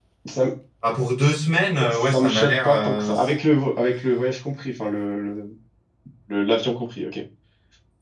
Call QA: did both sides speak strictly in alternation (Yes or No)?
No